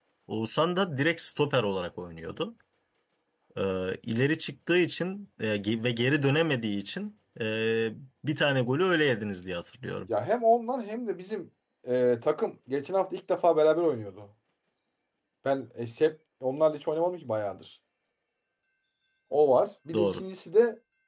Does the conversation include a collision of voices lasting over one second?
No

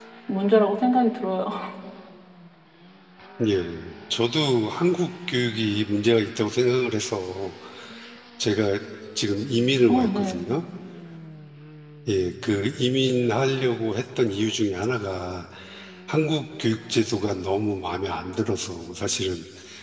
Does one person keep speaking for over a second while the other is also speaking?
No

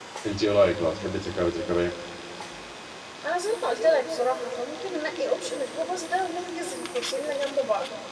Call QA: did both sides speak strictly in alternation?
Yes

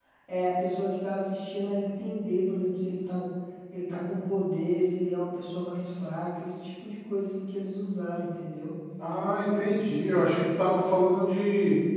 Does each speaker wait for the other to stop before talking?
Yes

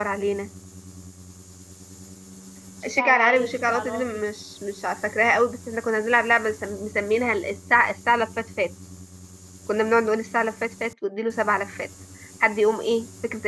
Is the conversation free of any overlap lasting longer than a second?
No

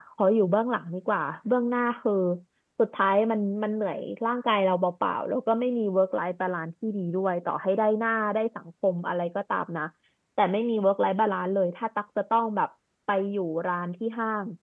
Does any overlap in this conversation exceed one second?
No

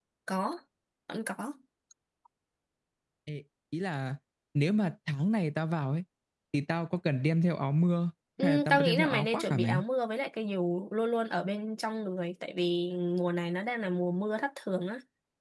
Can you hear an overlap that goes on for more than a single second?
Yes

